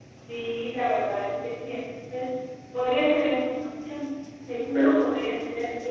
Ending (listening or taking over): listening